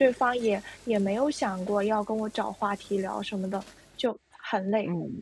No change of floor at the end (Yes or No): No